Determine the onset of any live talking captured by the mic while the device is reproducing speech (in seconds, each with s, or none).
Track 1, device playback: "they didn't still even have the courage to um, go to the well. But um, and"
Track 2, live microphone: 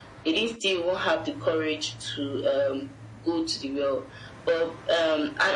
none